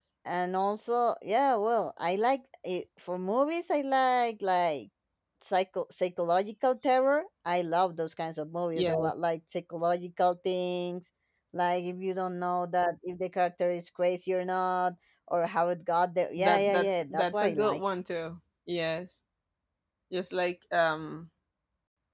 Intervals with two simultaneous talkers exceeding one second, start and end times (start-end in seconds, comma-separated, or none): 16.4-17.8